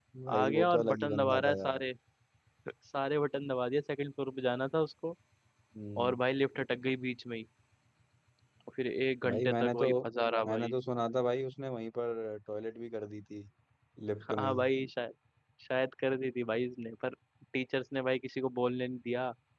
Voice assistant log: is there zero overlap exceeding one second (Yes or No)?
No